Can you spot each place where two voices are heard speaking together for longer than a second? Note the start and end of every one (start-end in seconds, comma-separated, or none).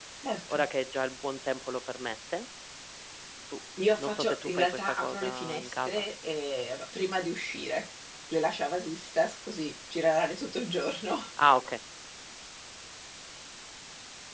3.9-6.0